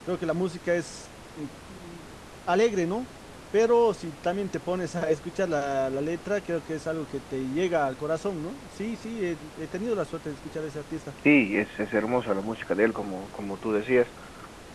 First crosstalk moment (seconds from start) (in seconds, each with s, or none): none